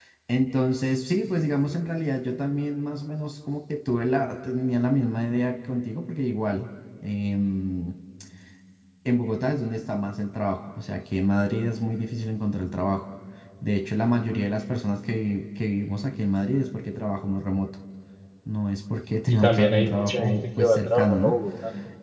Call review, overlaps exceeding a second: present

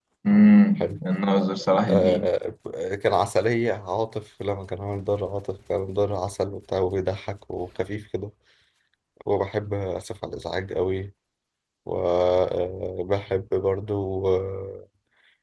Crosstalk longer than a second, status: none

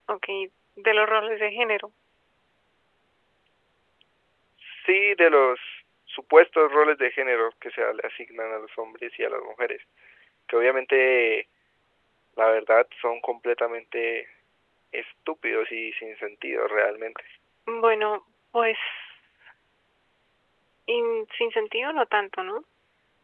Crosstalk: none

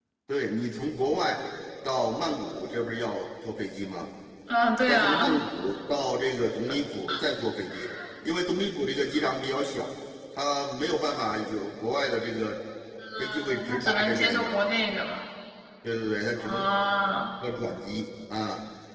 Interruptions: present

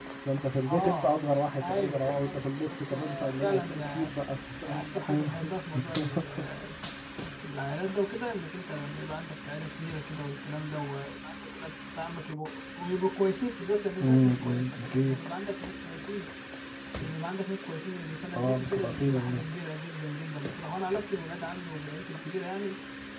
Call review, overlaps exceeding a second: present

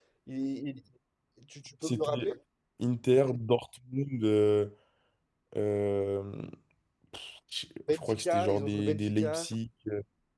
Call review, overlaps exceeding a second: present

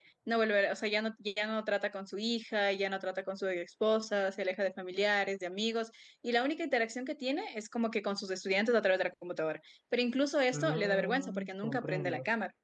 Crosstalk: present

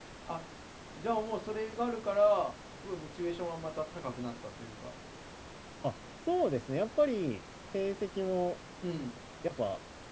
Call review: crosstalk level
none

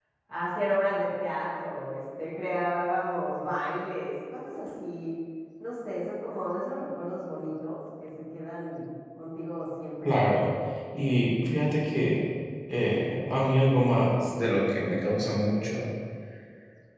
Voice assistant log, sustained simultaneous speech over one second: none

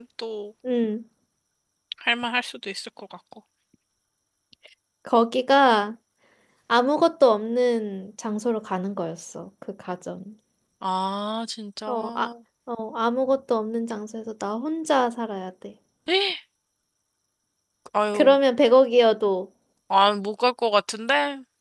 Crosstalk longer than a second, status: none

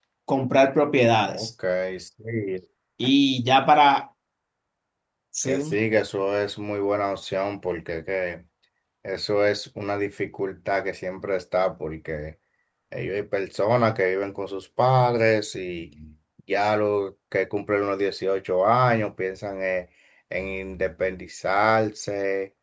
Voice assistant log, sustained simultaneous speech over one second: none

